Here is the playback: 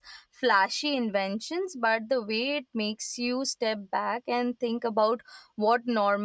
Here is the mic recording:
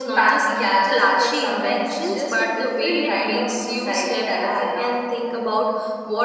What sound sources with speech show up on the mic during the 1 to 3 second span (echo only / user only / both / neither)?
both